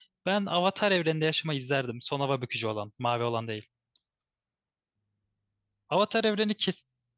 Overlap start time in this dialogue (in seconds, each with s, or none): none